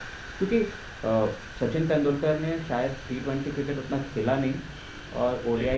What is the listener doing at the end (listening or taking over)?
listening